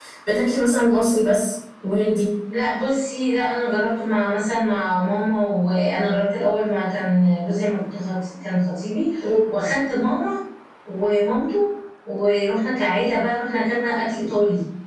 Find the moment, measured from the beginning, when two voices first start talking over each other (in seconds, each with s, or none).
none